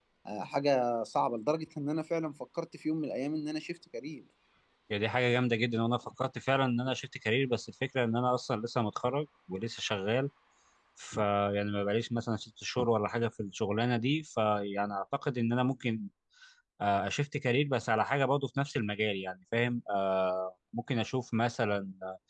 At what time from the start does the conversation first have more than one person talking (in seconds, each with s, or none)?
none